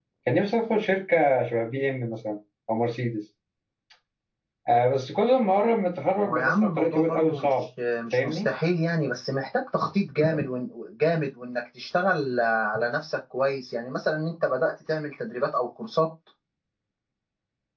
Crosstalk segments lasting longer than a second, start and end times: 6.3-7.5

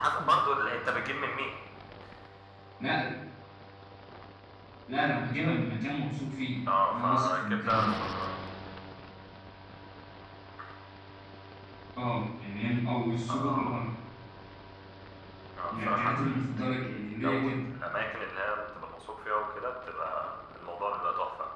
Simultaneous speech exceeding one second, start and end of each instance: 6.7-7.9, 15.7-17.6

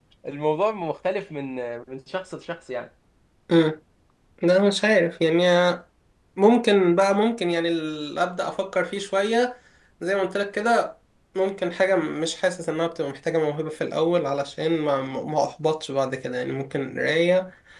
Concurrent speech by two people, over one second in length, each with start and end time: none

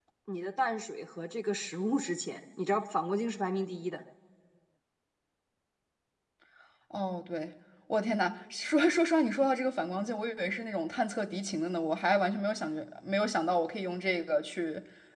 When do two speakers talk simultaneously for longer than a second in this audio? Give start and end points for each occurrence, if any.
none

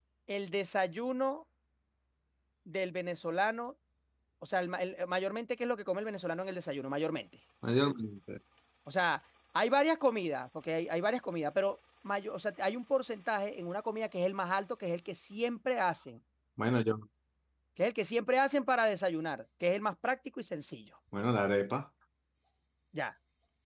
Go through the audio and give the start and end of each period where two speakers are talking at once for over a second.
none

